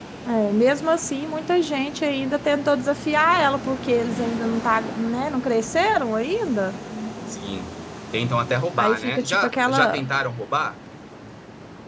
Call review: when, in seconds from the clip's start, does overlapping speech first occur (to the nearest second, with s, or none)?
9 s